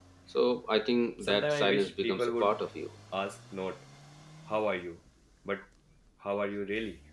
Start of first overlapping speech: 1.2 s

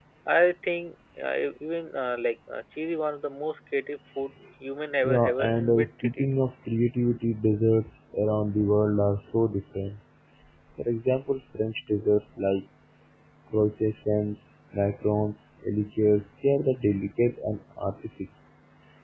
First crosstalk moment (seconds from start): 5.0 s

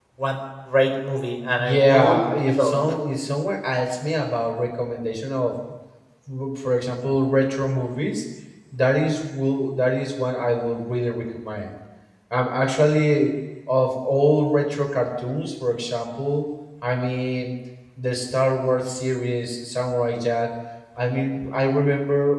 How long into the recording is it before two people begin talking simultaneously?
1.6 s

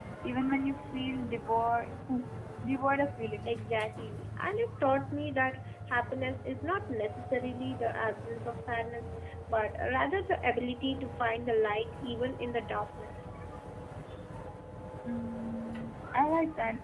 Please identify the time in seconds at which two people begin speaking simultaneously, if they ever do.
none

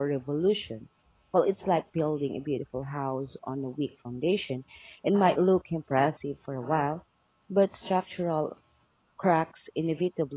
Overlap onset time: none

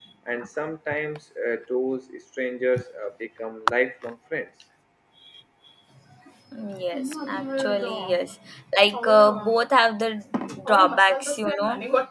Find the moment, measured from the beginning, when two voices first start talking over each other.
none

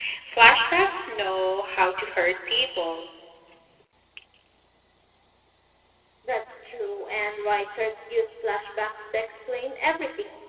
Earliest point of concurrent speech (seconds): none

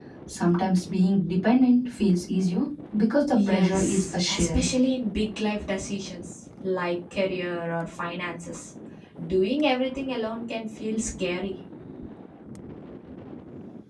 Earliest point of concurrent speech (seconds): 3.3 s

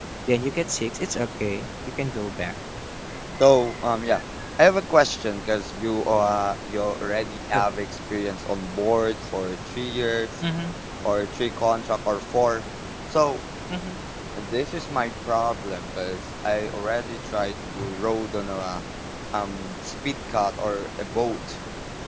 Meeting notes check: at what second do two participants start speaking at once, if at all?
none

